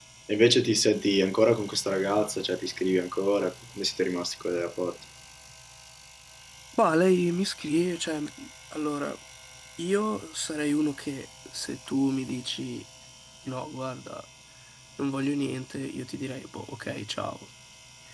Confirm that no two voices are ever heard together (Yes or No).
Yes